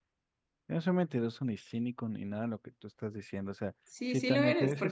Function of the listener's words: taking over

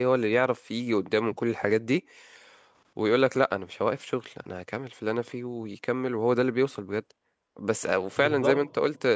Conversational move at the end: listening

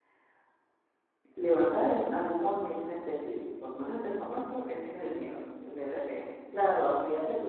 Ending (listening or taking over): listening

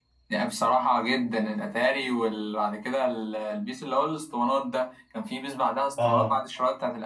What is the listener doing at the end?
listening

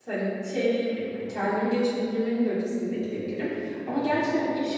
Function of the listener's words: listening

